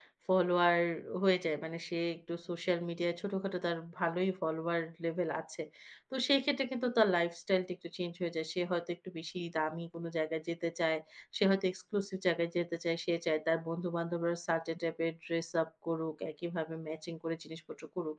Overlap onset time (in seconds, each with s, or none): none